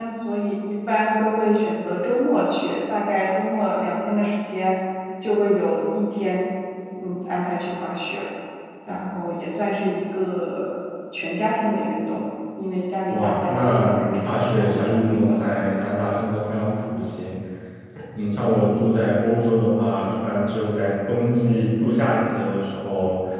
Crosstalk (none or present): present